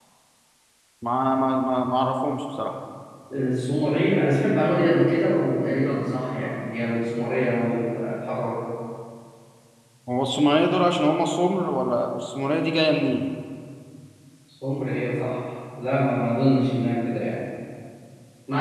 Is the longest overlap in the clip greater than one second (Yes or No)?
No